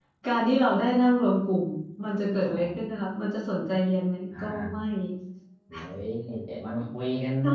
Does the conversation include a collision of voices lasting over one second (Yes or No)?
No